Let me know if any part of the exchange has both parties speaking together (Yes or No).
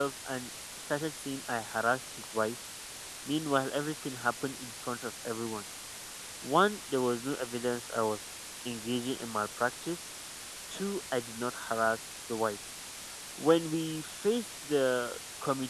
No